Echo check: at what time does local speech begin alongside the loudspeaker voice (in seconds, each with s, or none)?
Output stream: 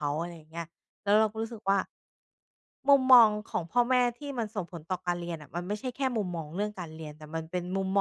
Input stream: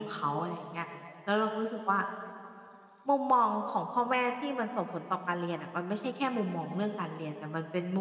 none